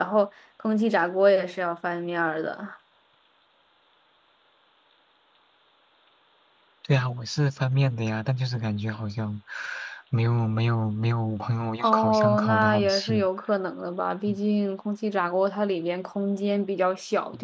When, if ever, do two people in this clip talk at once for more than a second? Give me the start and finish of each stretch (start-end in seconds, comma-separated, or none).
11.8-13.2